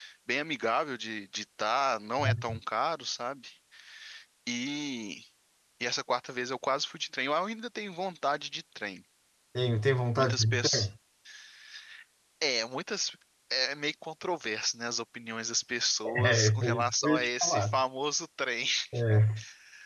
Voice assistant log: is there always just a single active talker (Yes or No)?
No